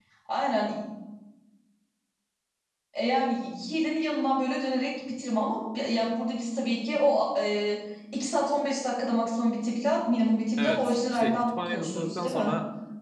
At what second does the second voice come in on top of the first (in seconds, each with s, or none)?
10.6 s